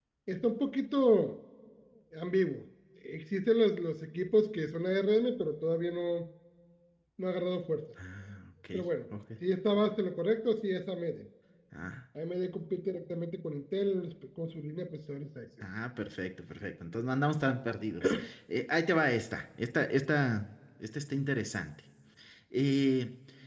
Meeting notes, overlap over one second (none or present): none